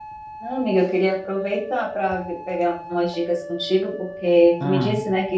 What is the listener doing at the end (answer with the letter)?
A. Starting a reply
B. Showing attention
B